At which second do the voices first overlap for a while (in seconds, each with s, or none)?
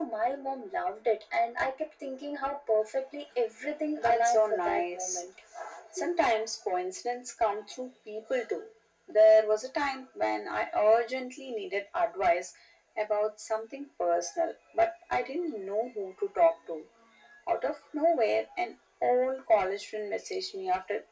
4.0 s